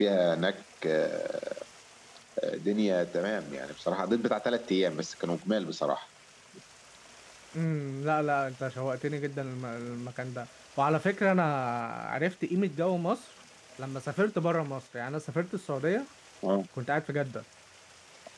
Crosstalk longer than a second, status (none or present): none